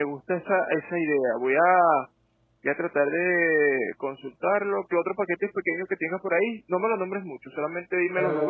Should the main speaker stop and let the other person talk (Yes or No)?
Yes